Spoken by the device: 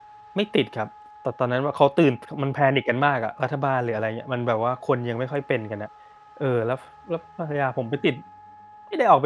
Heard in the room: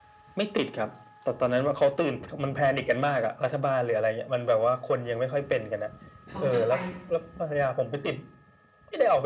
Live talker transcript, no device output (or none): เขาจะไป